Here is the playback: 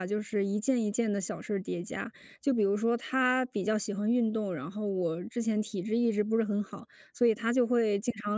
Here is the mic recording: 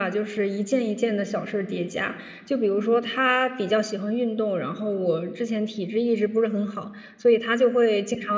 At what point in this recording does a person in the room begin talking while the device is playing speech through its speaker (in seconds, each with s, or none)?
2.7 s